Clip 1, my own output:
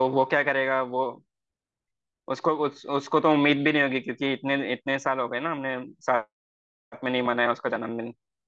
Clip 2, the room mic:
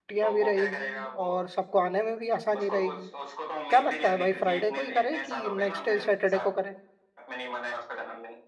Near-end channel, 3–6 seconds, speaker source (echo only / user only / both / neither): both